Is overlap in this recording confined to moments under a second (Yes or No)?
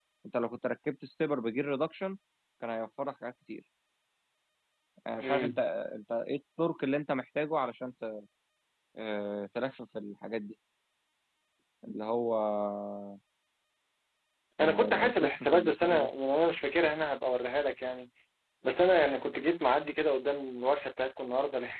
No